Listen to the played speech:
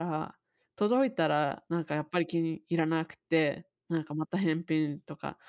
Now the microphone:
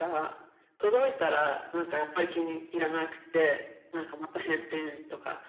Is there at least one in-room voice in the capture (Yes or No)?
No